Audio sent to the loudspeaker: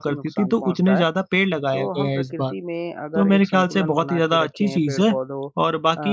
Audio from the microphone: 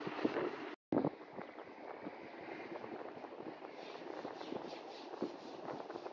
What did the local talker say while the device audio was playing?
none

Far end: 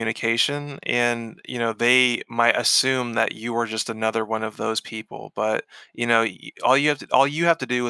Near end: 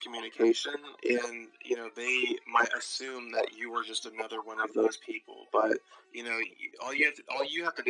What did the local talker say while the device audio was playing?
none

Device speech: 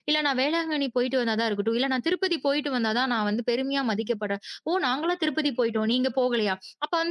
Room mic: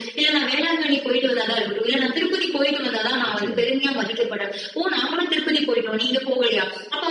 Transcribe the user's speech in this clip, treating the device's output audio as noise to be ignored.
நிச்சயமா.

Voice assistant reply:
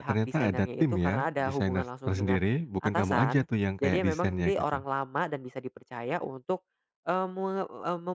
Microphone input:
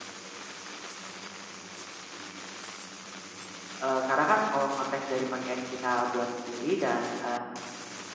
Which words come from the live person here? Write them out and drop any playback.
eee, karena kan kalau konteks dari pakaian kita buat sendiri dan, eee

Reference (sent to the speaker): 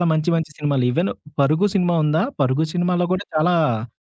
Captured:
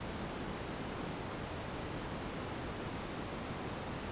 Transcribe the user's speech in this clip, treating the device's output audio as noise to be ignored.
none

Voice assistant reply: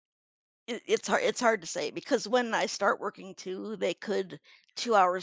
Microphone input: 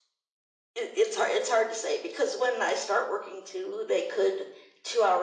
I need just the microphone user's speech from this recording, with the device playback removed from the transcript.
none

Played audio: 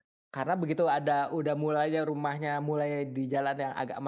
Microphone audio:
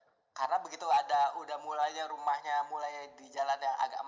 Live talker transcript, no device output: none

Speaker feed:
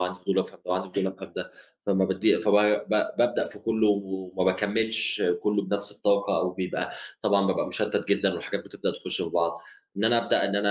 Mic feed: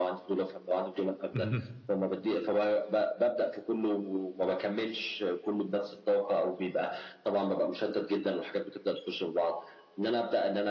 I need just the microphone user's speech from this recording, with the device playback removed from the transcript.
اهم.

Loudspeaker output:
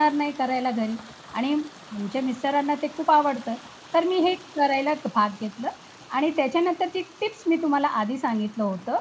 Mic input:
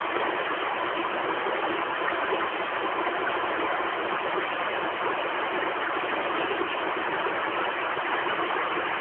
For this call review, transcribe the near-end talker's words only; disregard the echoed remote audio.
none

